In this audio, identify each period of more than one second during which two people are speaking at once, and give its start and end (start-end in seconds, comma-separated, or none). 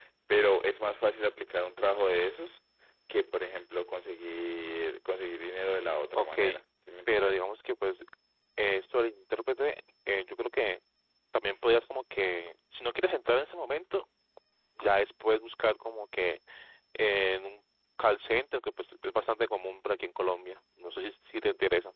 none